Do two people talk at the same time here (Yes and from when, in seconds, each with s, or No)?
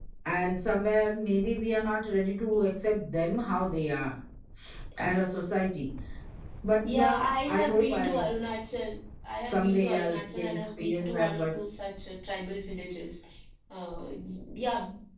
Yes, from 6.8 s